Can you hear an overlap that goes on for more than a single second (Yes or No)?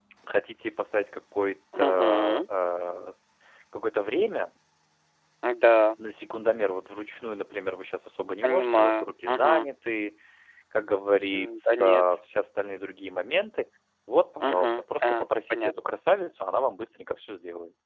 Yes